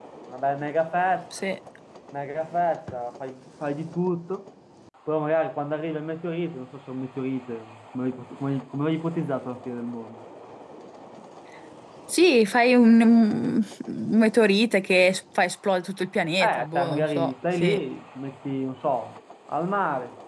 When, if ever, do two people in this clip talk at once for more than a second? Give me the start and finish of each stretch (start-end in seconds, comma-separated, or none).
16.4-17.8